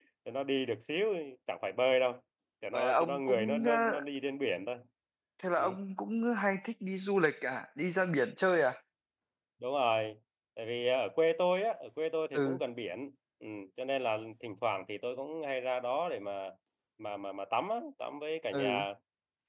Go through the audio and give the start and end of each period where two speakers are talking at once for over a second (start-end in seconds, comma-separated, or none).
2.7-4.0